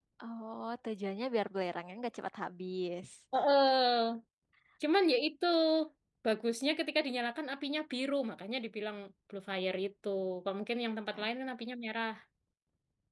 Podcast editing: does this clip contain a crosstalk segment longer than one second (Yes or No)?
No